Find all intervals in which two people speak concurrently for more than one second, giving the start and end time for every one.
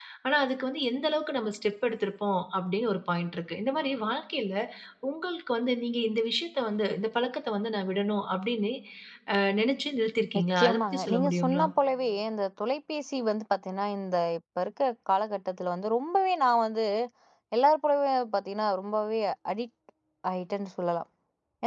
10.4-11.7

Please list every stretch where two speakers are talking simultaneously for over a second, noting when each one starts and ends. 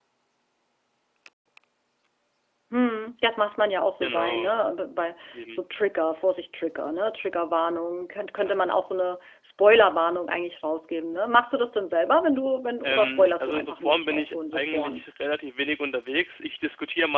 12.8-15.0

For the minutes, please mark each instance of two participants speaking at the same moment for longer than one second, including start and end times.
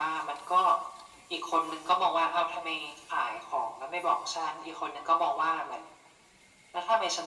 none

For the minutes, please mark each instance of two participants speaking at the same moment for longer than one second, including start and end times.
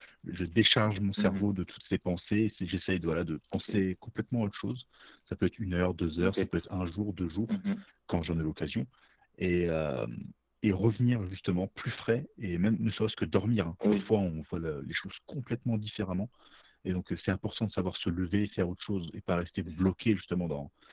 none

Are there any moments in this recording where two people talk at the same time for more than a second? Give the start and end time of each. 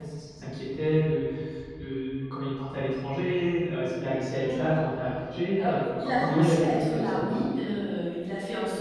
5.6-7.4

